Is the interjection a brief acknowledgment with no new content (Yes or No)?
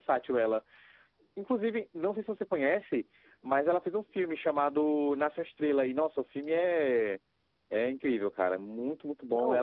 No